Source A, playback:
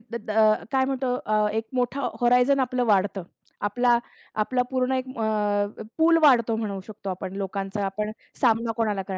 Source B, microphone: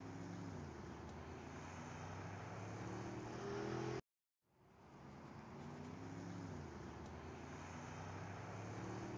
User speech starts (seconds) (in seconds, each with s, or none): none